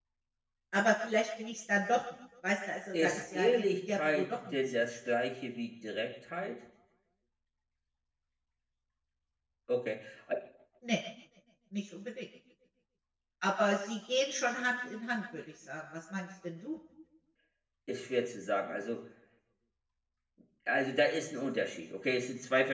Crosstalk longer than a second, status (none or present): present